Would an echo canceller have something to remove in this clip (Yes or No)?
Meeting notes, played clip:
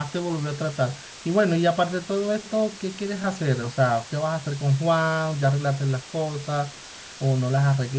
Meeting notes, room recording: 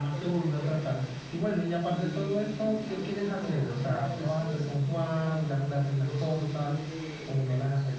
Yes